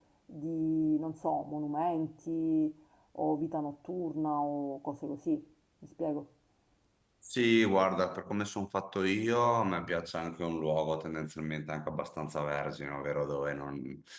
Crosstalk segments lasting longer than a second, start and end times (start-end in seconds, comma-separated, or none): none